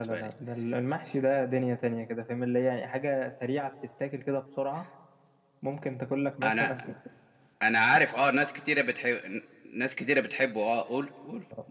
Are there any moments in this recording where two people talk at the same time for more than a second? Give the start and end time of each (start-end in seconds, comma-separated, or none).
none